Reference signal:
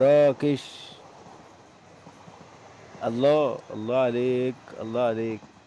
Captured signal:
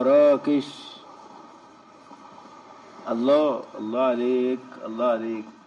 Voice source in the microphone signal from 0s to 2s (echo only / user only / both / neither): echo only